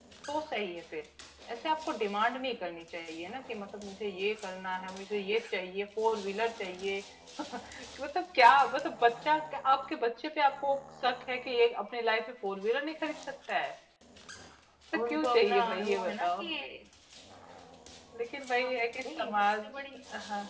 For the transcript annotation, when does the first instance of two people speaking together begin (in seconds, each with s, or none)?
15.1 s